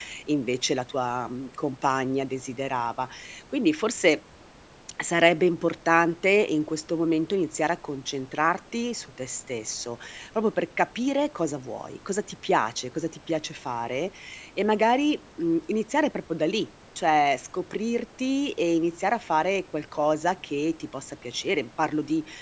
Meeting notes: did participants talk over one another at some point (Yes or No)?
No